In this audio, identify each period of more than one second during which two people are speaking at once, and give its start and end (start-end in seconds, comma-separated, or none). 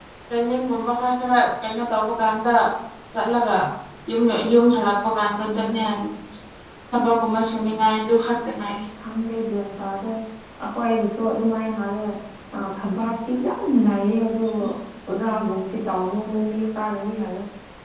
none